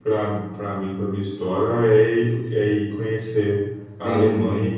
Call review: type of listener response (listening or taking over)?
listening